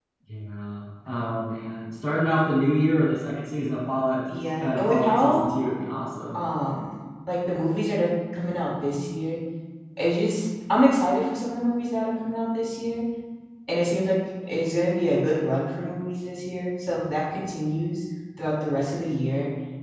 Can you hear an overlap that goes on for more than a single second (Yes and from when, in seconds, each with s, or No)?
Yes, from 4.3 s